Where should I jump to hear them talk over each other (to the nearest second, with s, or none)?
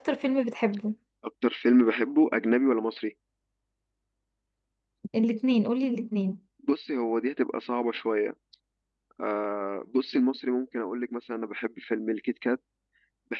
none